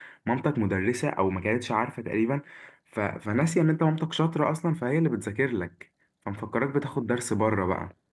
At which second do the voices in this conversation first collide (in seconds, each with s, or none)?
none